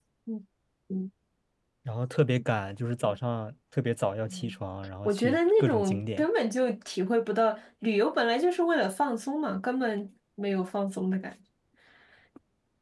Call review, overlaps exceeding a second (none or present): present